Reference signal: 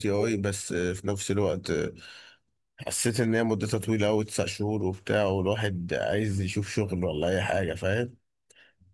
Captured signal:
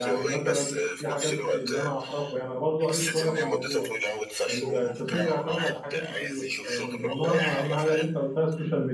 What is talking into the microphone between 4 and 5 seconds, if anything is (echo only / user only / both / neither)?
both